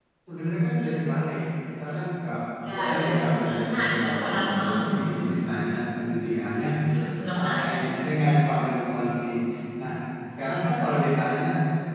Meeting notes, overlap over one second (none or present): present